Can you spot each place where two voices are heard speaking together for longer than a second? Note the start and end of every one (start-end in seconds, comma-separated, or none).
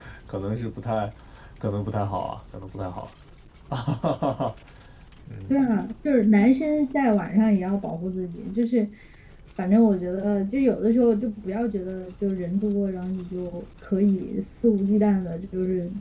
none